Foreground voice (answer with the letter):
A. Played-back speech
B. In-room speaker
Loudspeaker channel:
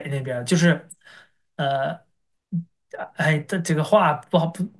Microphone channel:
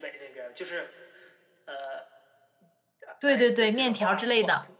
B